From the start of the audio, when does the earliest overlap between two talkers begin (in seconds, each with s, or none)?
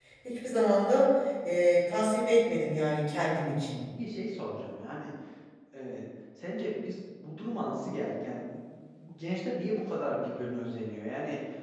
none